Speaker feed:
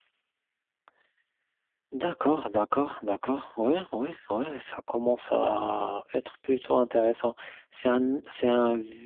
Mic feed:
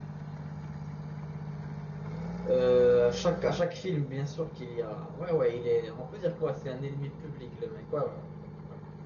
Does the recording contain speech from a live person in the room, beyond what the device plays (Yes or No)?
Yes